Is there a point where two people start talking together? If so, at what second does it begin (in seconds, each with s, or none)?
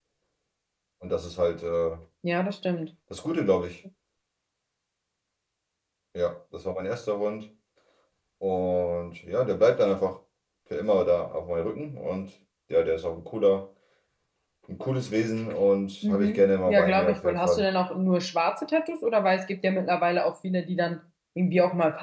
16.0 s